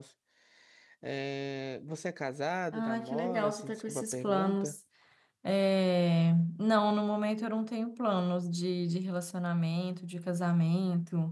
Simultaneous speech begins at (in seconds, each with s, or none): 2.7 s